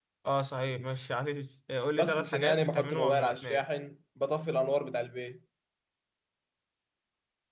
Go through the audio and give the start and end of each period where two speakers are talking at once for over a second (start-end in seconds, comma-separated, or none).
2.0-3.7